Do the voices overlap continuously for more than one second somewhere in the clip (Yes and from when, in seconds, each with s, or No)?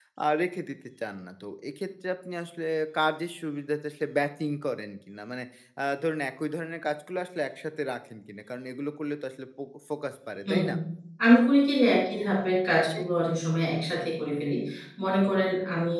No